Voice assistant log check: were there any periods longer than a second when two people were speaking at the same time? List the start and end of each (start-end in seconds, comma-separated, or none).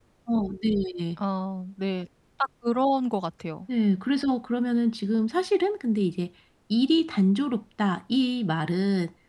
none